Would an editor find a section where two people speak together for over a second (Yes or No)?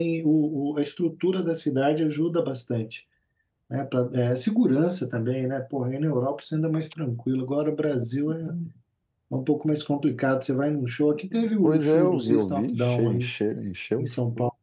Yes